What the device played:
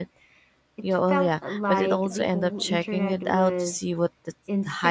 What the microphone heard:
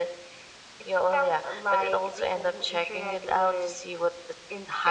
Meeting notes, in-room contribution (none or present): none